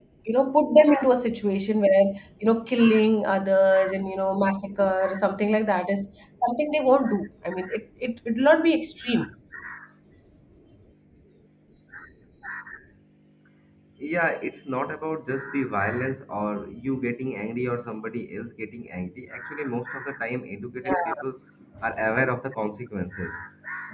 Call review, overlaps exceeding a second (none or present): none